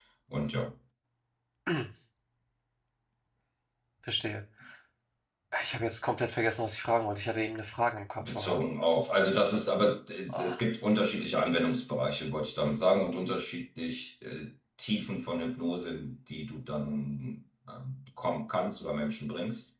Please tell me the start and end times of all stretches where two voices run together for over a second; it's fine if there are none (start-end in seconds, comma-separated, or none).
none